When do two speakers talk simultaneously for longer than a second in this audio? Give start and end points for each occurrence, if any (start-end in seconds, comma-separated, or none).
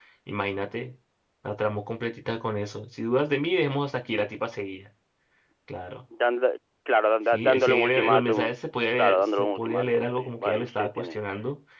7.3-8.5, 9.0-11.2